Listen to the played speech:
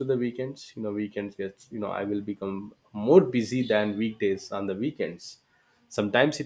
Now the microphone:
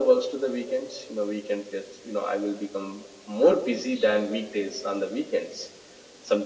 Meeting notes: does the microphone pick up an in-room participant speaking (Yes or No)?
No